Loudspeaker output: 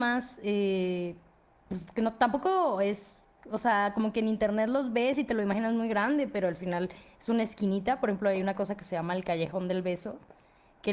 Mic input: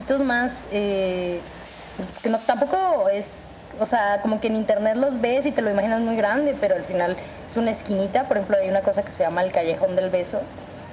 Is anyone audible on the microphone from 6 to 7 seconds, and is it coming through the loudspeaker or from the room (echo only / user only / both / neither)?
echo only